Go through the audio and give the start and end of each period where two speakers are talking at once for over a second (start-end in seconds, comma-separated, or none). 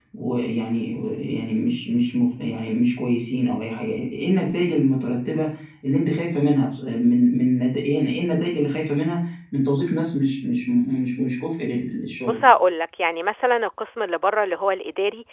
none